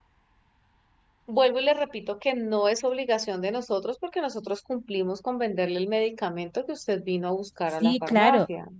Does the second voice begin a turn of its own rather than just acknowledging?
Yes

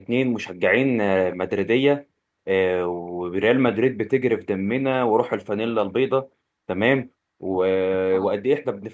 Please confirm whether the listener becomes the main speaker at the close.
No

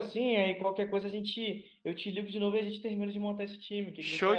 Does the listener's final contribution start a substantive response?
Yes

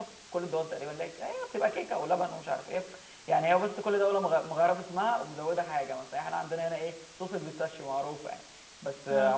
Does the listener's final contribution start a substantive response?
No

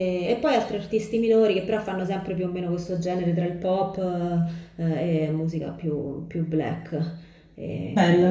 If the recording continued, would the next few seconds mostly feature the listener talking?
Yes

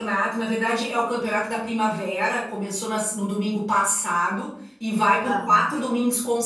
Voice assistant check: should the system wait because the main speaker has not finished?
Yes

